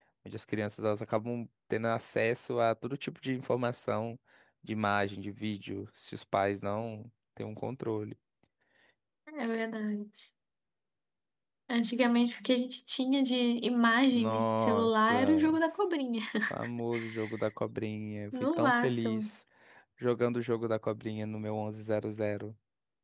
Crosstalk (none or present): present